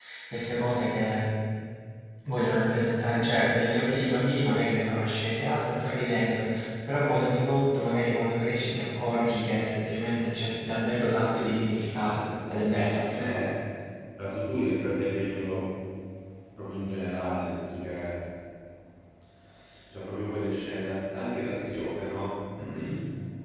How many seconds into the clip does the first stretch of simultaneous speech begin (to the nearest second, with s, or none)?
11 s